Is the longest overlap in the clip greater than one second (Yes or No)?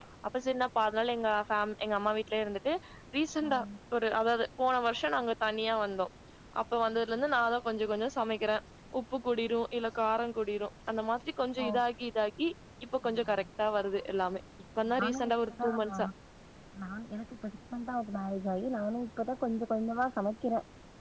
No